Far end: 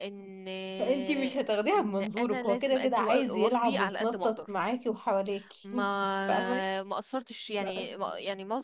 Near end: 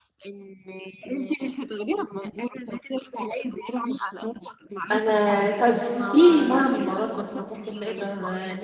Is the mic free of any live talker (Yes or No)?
No